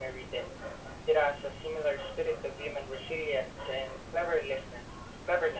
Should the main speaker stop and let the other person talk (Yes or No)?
Yes